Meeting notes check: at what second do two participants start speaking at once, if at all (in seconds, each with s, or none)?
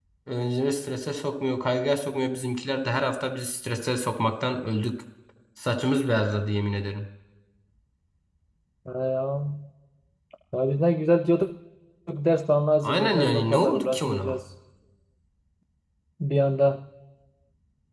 12.8 s